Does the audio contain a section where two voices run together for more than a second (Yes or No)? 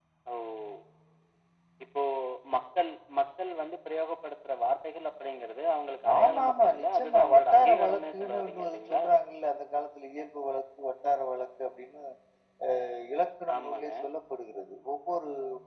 Yes